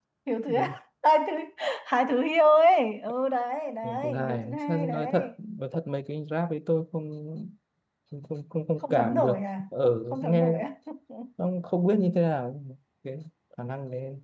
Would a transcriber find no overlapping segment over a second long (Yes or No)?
No